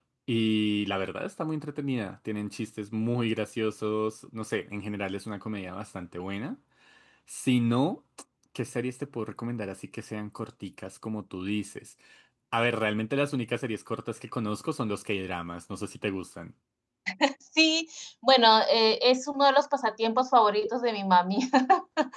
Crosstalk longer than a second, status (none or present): none